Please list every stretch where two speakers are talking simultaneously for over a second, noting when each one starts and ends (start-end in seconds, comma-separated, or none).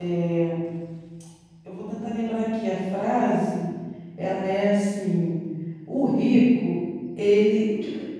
none